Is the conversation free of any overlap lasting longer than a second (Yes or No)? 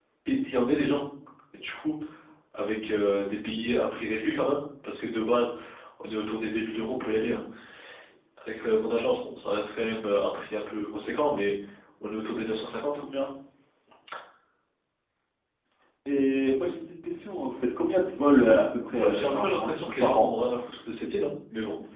No